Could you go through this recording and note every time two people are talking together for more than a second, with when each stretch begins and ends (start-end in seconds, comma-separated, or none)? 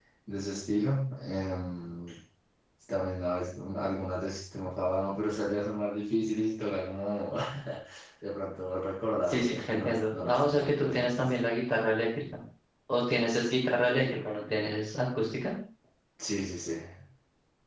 9.3-11.3